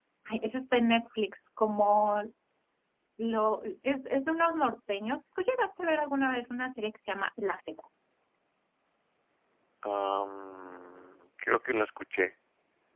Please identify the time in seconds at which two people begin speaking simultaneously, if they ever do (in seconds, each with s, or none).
none